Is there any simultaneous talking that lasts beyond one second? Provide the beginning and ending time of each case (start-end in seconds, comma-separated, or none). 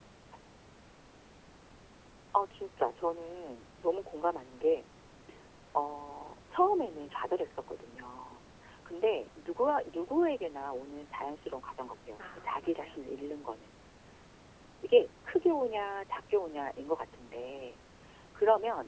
12.2-13.4